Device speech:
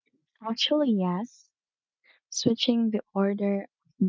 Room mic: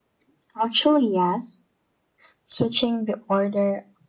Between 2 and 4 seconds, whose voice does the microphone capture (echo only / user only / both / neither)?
echo only